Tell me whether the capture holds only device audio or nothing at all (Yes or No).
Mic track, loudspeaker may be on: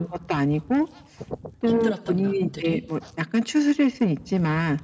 No